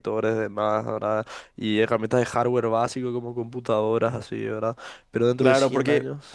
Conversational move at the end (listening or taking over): taking over